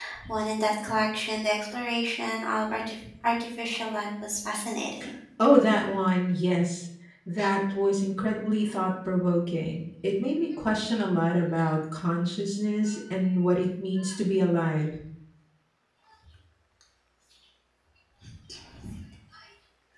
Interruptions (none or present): none